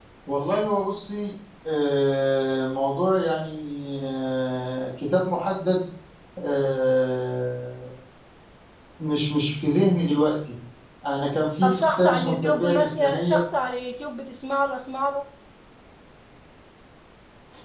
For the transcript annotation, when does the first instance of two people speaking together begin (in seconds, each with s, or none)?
11.6 s